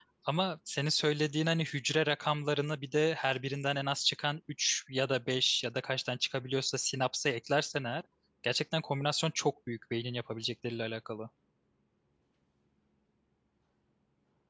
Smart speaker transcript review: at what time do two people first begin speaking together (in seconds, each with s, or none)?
none